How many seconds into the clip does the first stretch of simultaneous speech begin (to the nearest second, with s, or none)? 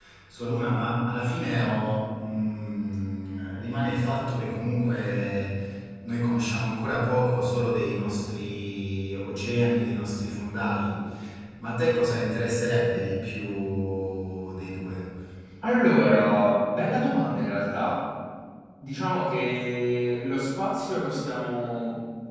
none